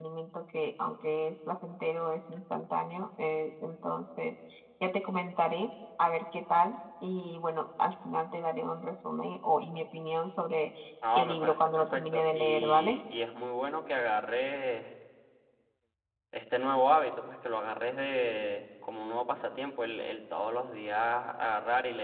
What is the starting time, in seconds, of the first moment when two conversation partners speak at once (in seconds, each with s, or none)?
11.2 s